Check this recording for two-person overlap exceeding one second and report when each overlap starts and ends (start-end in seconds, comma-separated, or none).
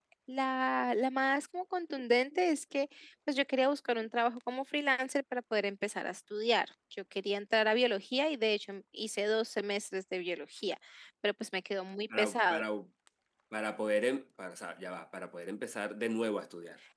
none